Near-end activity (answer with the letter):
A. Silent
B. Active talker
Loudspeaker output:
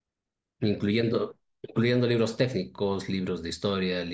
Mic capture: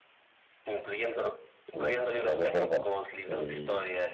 B